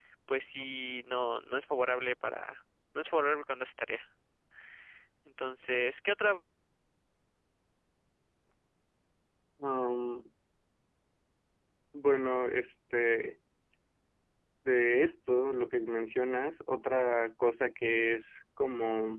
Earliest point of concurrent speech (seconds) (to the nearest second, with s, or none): none